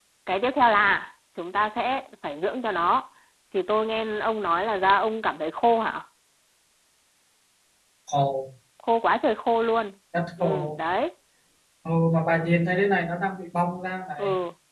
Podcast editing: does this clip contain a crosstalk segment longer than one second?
No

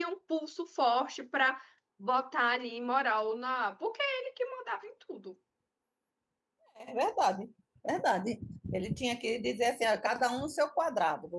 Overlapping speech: No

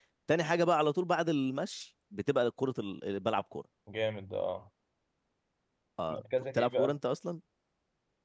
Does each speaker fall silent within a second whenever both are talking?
Yes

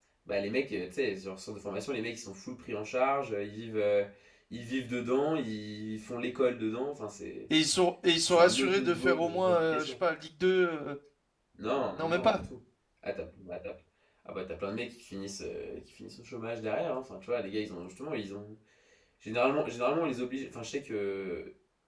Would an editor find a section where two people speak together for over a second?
Yes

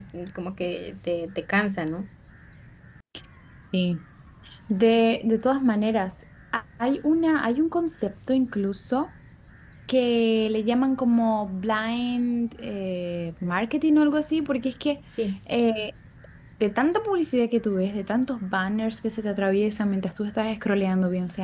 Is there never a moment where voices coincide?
Yes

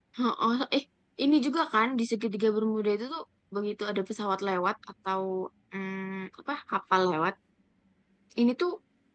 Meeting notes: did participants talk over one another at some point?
No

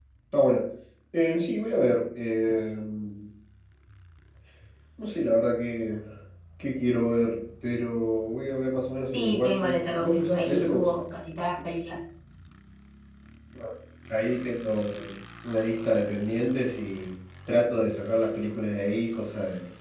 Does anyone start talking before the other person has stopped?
Yes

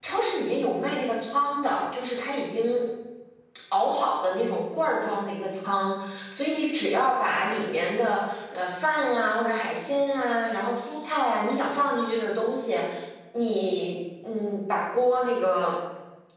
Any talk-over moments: No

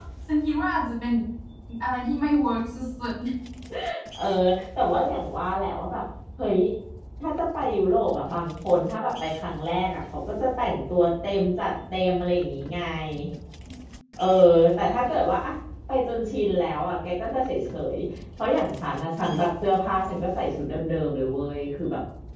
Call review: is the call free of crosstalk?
Yes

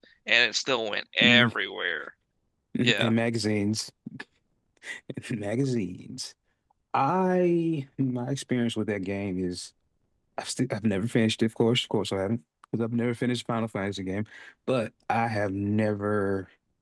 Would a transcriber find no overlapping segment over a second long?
Yes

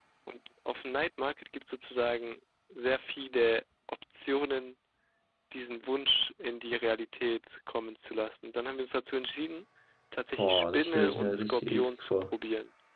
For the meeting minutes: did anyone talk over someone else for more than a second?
Yes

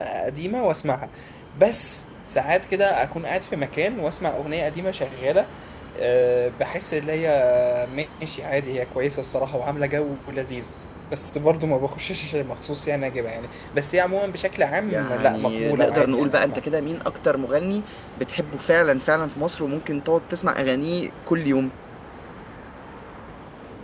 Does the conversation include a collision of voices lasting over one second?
Yes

